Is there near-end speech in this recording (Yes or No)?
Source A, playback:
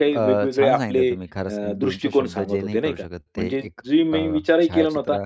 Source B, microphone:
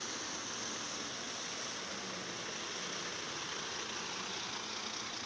No